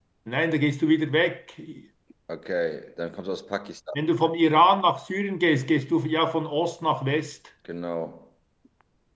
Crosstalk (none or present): none